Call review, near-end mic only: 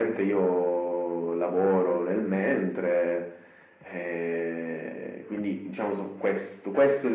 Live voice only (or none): none